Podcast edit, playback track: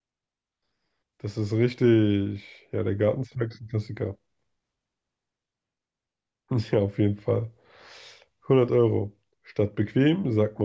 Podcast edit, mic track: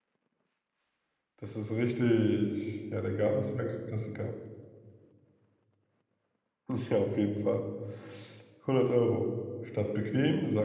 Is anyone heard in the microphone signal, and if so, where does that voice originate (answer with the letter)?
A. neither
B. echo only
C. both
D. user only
B